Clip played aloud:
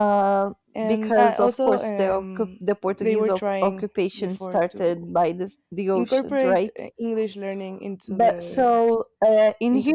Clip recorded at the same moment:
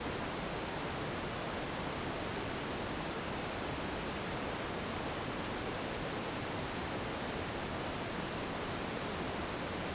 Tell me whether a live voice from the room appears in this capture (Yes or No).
No